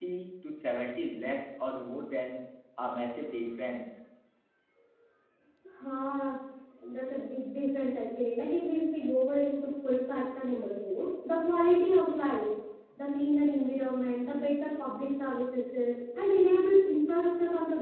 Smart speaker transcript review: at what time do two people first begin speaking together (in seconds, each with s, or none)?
none